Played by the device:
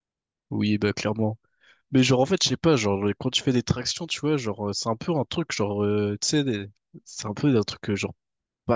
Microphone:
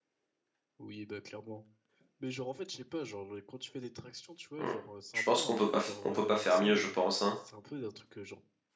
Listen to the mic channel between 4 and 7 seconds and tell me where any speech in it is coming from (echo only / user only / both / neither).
both